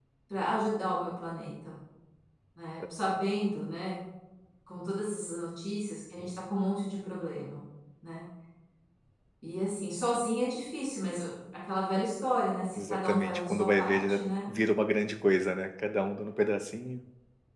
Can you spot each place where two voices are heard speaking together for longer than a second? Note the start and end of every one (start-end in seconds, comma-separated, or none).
12.8-14.3